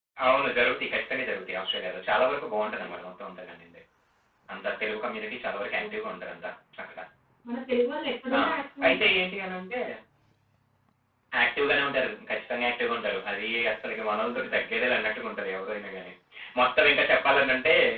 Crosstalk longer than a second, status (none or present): none